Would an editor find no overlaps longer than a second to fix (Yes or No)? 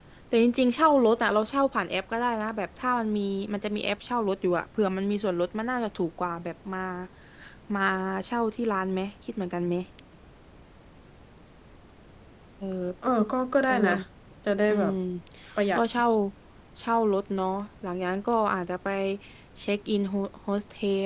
Yes